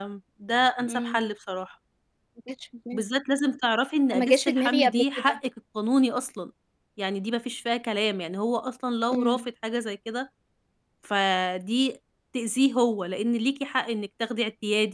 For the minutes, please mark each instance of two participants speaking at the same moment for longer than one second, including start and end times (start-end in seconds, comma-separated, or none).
4.1-5.4